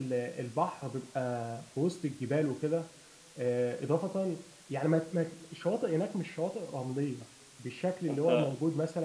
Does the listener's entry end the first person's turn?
No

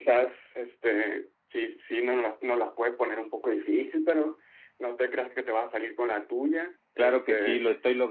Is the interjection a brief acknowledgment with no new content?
No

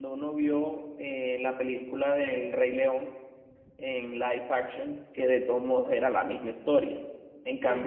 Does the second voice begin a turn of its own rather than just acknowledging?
No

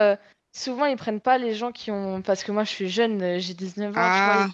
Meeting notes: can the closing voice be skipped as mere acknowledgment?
Yes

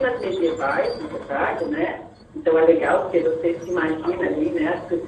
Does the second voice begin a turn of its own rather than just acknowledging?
No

